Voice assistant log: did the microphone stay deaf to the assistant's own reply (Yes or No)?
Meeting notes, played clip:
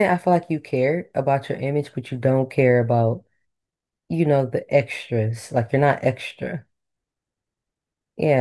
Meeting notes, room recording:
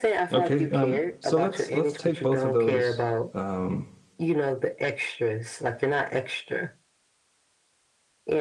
No